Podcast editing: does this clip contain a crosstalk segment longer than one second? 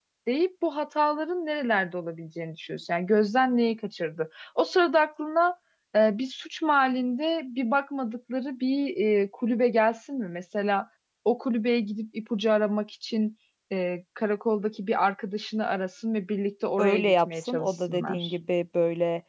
Yes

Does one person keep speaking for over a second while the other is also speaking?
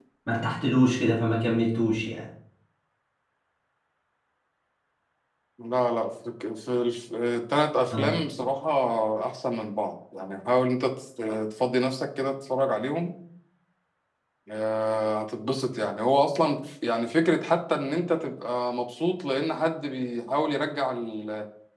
No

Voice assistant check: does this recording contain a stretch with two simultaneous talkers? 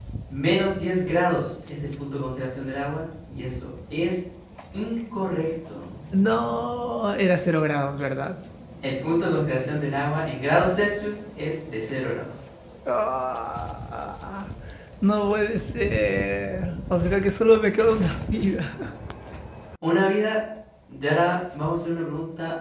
No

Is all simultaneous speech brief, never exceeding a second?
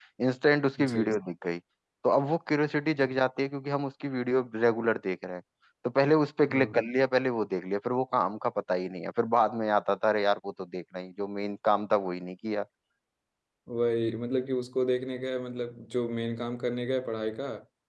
Yes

